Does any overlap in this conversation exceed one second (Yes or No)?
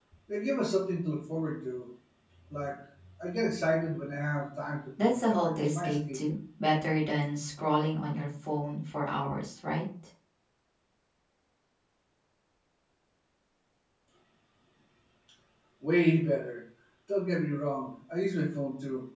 Yes